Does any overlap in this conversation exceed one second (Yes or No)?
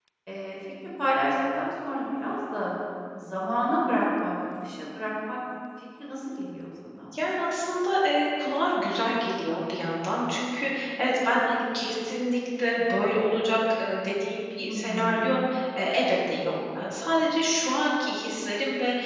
No